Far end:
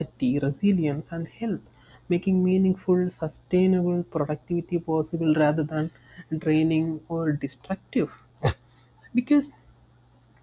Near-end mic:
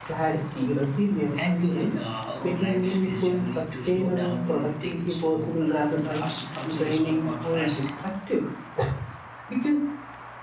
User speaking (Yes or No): Yes